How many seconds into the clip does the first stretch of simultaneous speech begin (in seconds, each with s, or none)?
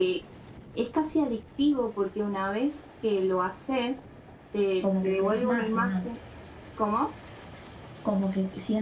4.8 s